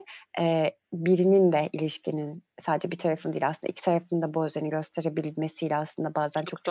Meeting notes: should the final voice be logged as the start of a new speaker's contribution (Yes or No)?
No